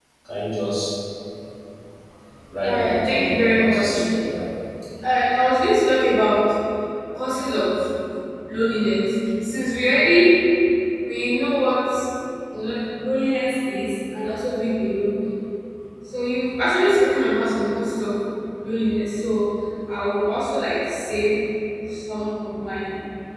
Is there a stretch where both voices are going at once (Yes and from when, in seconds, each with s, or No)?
Yes, from 2.6 s